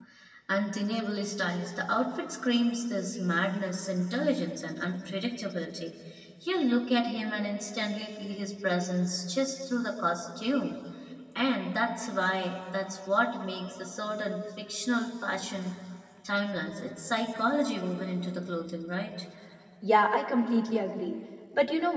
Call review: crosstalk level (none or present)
none